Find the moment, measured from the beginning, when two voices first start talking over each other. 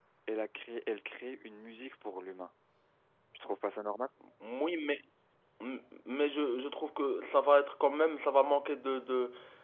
none

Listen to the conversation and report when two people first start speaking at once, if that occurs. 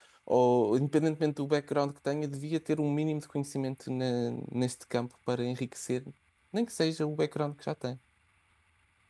none

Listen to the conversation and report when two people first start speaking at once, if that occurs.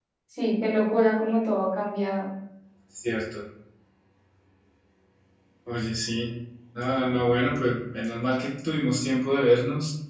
none

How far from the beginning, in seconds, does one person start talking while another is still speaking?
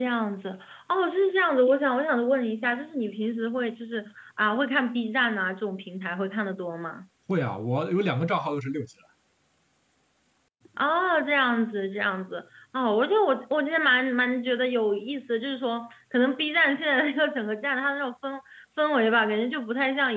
none

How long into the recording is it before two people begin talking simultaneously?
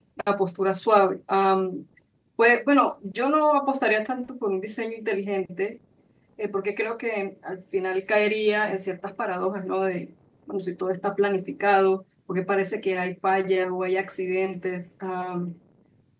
none

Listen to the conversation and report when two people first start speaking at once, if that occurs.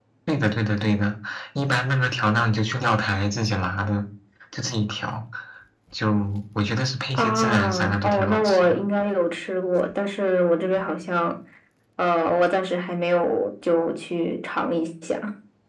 7.1 s

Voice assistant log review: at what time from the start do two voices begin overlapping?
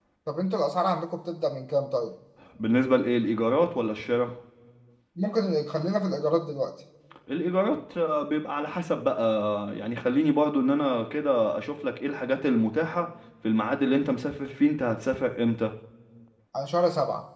none

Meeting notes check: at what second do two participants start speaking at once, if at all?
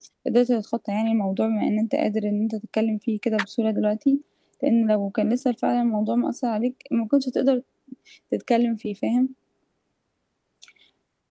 none

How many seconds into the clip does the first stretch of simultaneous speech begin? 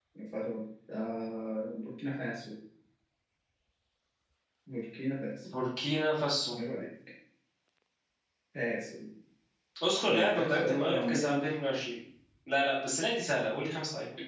10.1 s

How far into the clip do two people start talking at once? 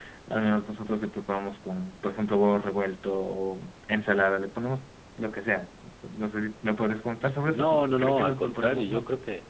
7.4 s

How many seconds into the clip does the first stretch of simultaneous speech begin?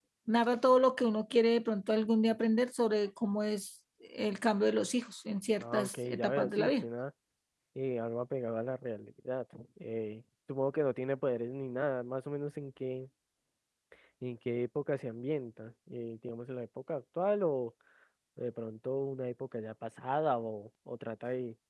5.6 s

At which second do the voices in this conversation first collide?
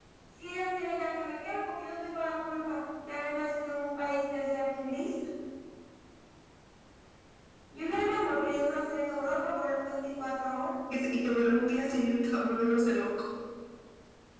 none

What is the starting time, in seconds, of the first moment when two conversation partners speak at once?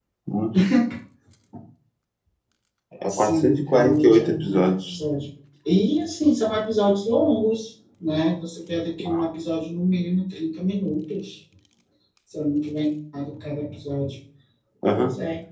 3.1 s

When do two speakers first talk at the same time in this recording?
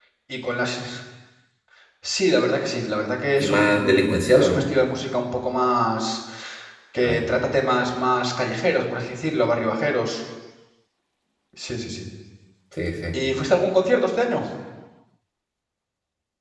3.4 s

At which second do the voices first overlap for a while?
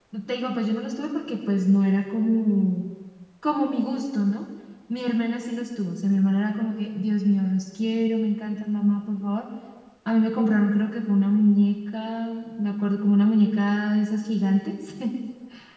none

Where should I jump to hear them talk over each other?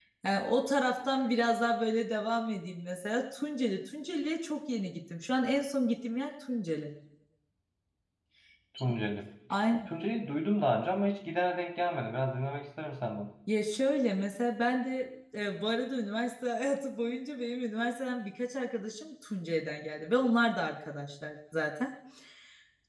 none

